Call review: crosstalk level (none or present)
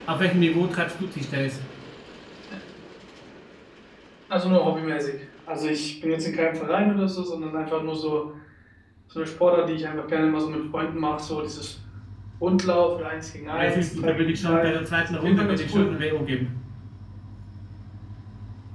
present